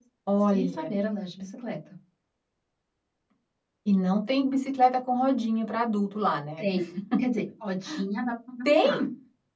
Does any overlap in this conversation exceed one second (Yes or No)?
No